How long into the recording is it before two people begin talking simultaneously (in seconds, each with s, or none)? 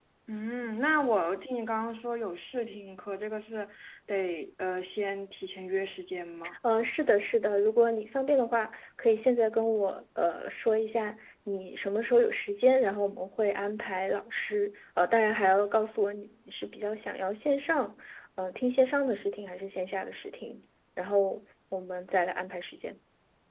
none